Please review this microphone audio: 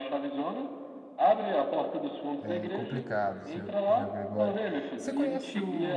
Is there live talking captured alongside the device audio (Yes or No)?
Yes